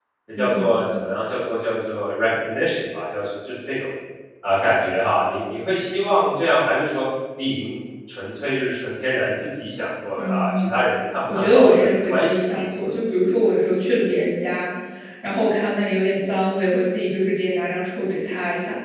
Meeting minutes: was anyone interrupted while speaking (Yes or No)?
Yes